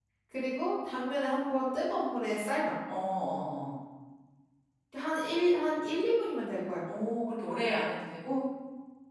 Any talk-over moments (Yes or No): No